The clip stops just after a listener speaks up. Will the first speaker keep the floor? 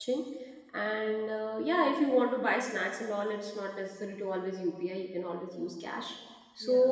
Yes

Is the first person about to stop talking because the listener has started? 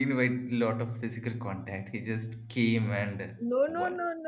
Yes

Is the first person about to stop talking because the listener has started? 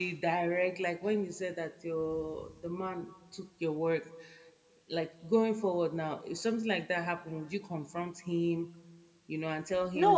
Yes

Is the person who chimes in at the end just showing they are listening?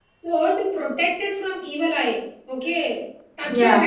Yes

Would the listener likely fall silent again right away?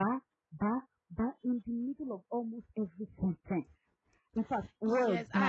No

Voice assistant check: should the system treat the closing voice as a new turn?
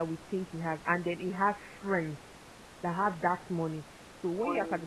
No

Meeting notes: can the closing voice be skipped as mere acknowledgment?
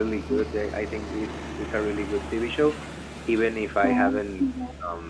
Yes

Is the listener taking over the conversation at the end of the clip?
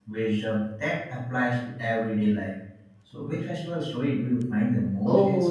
Yes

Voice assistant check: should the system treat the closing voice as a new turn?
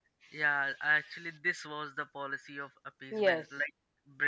No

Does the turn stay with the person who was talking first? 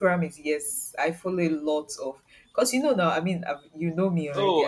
No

